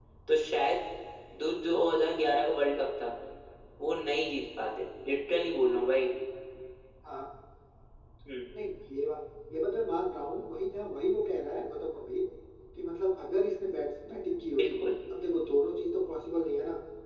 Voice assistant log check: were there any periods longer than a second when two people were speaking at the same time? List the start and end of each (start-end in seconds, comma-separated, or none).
none